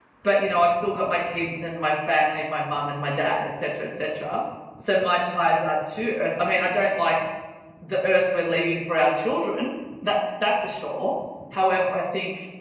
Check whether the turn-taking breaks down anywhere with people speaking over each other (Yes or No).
No